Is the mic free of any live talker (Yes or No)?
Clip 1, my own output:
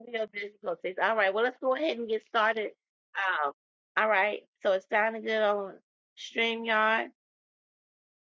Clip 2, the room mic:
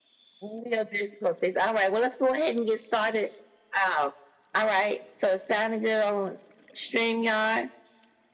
Yes